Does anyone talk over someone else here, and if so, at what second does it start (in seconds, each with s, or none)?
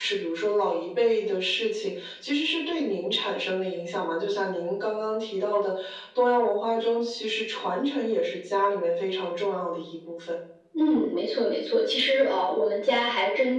none